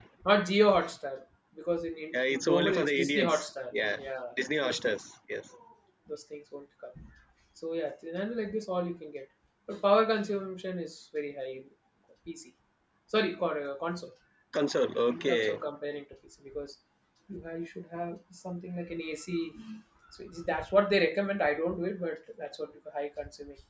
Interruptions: present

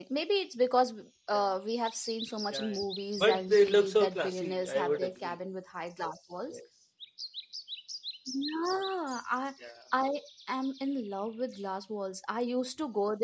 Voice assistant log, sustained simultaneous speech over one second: present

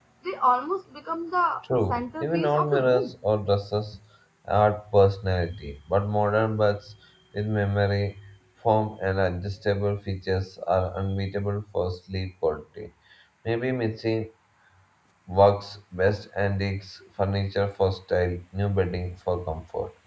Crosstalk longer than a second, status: present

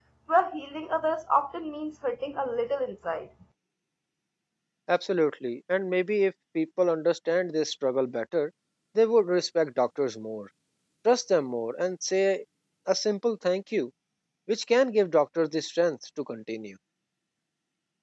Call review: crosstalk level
none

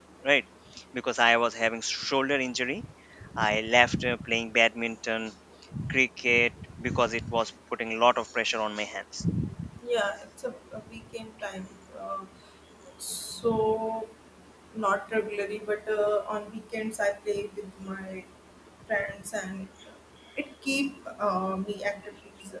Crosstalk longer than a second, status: none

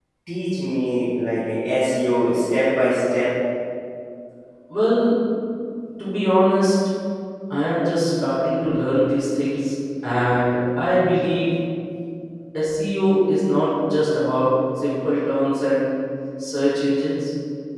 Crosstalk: none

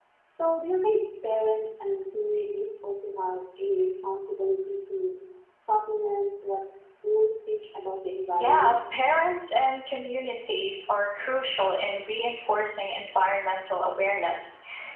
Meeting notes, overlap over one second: none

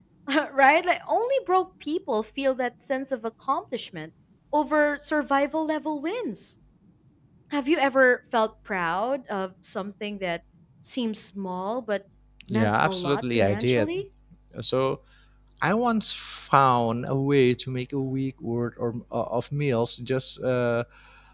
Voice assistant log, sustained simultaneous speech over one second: present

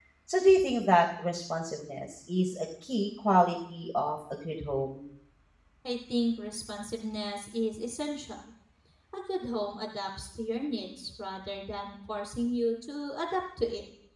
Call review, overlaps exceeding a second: none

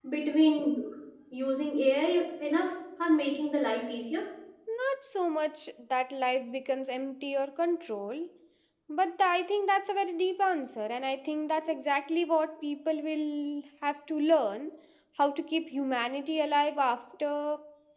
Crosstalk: none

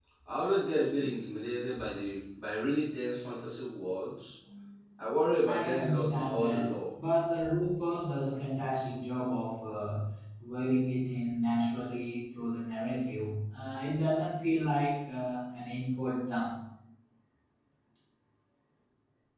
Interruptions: present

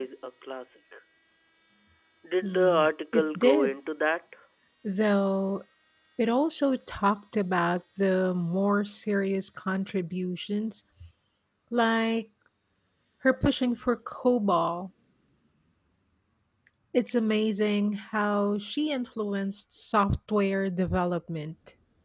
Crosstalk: present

